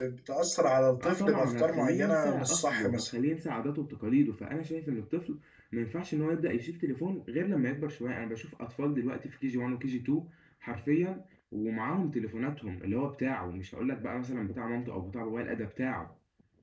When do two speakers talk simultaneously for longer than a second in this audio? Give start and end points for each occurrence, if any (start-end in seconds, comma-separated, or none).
1.0-3.1